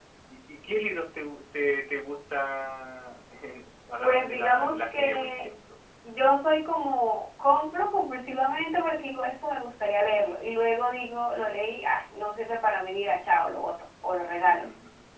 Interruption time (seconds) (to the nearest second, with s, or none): 4 s